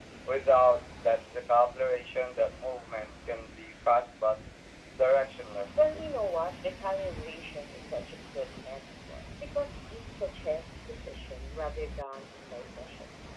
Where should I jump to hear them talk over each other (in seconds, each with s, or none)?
none